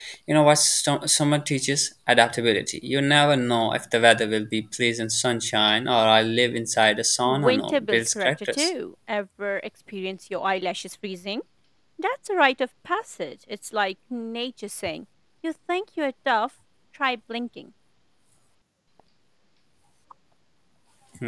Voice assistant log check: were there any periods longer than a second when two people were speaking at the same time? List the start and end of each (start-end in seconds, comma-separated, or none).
7.2-8.7